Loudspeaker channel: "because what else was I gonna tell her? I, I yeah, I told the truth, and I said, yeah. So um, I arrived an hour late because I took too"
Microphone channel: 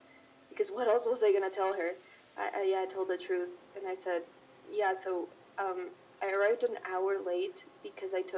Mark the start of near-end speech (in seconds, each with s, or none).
none